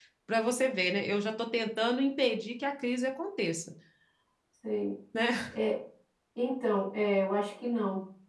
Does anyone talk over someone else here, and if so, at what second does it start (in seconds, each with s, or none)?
none